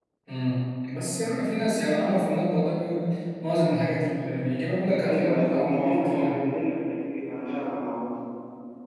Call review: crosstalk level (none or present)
present